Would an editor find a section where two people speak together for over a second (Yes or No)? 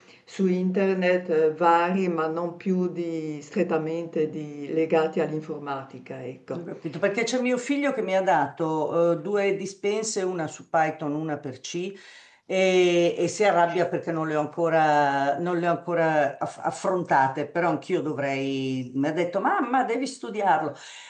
No